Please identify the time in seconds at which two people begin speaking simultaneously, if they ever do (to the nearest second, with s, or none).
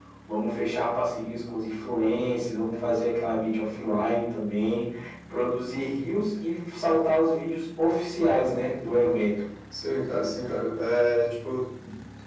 none